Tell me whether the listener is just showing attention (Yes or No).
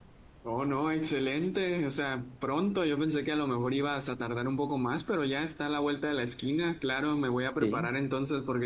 Yes